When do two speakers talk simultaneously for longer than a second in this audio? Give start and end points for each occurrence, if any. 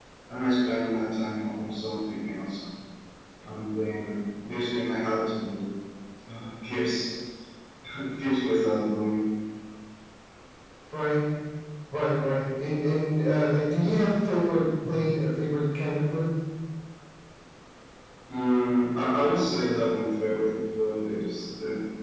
none

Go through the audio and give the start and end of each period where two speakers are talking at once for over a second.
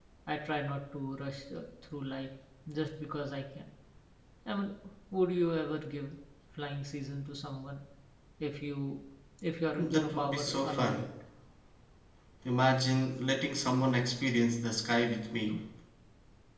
9.8-11.1

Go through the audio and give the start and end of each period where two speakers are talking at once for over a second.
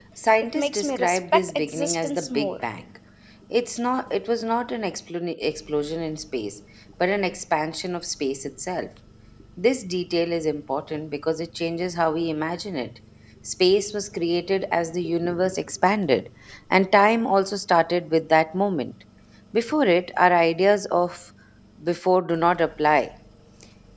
0.6-2.6

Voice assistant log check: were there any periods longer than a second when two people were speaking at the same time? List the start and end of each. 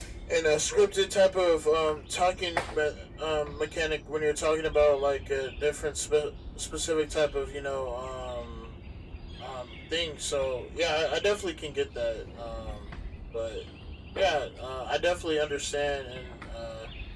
none

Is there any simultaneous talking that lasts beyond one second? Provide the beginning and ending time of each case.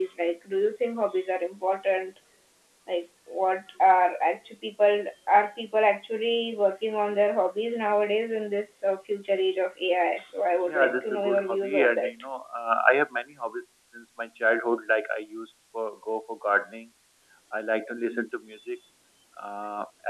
10.7-12.1

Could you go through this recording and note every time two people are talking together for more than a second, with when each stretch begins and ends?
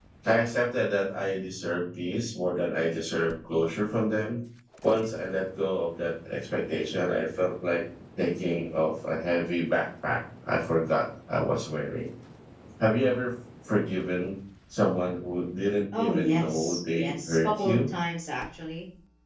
16.0-17.8

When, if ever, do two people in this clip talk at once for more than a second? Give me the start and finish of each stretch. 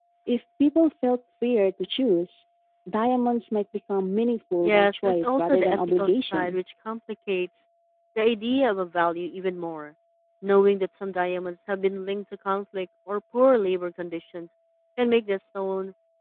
4.6-6.6

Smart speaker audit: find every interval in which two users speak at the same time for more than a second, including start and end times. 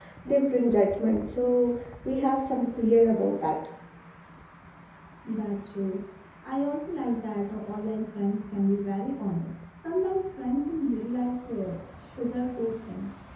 none

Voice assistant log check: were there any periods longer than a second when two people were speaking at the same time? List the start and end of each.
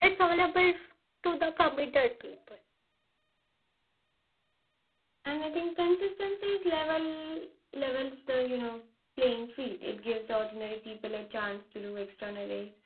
none

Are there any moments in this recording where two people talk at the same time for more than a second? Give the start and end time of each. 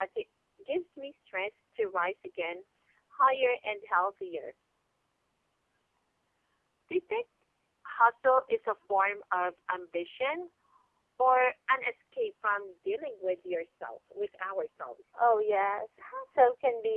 none

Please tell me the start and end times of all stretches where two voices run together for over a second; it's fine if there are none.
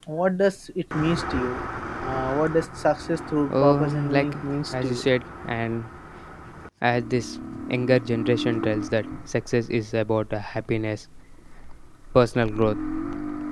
3.5-5.1

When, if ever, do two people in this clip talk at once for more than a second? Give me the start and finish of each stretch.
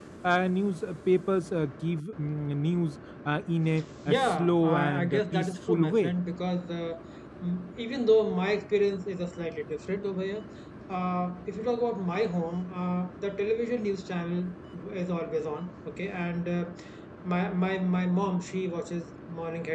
4.1-6.1

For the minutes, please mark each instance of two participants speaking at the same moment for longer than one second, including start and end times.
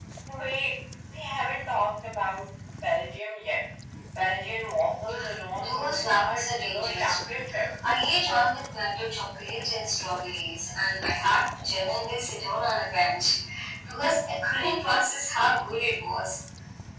5.6-7.4

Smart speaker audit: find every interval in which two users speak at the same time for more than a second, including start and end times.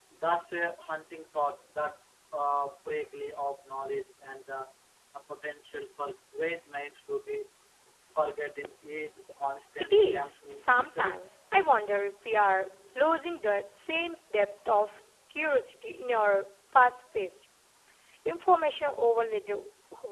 9.8-11.1

